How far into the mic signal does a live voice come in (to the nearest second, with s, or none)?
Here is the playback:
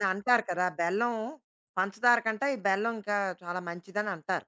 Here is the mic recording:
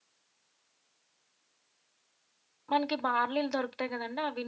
3 s